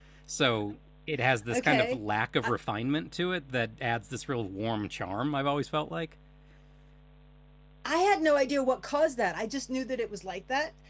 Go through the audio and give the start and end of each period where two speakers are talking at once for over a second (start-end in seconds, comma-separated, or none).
none